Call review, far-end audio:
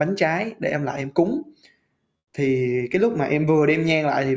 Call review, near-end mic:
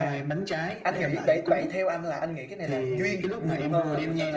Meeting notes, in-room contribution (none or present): present